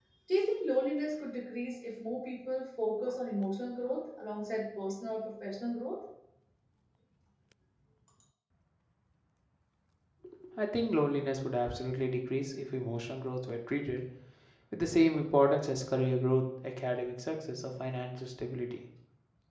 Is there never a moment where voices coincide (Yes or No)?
Yes